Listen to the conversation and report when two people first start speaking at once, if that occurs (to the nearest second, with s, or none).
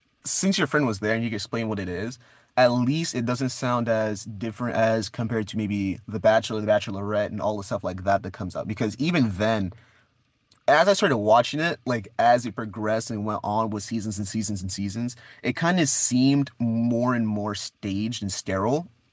none